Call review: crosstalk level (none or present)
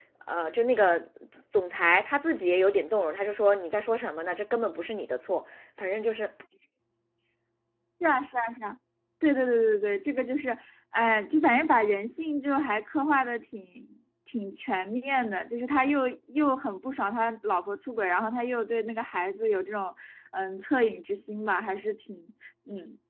none